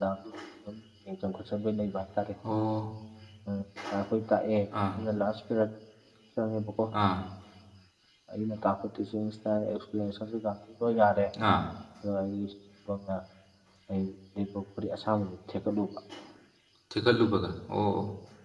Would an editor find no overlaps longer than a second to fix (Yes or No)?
Yes